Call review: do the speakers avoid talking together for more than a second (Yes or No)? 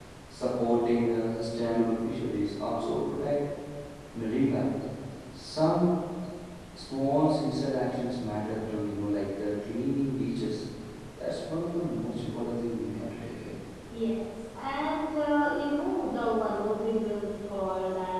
Yes